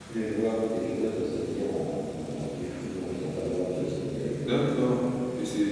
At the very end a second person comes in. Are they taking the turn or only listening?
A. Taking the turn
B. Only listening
A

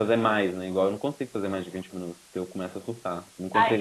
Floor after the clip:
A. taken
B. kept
A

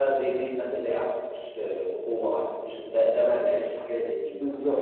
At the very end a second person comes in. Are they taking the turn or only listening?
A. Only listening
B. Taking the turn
B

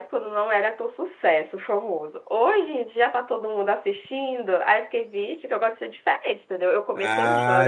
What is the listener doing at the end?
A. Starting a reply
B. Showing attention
A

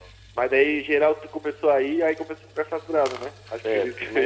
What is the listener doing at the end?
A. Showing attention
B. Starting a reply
B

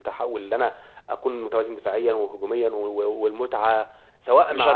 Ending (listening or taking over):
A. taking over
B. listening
A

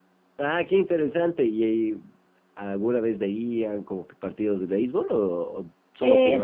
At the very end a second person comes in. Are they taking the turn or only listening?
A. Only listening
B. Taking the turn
B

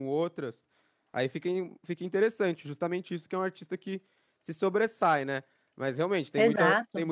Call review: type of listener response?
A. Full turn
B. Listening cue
B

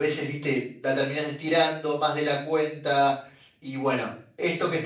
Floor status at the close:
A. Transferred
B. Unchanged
B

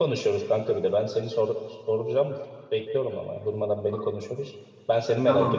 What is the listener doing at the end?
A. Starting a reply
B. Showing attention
A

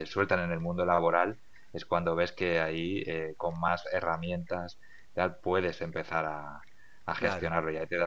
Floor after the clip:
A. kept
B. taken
A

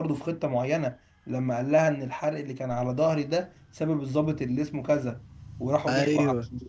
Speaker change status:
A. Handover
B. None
B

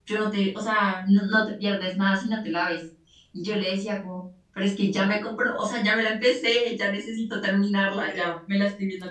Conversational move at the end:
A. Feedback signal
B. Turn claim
A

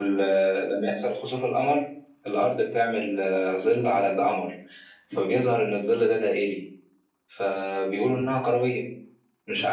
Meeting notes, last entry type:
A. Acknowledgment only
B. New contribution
B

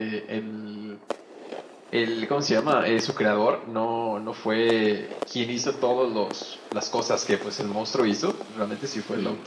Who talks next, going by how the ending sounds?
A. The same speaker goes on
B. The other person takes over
A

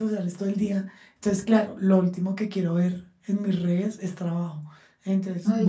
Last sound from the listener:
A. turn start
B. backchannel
B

